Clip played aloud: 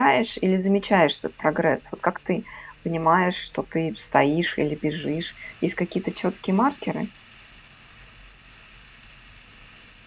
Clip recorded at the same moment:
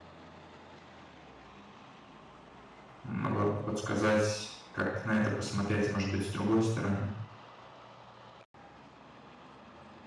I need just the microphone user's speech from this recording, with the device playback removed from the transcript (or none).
могла бы подсказать, как на это посмотреть, может быть, с другой стороны.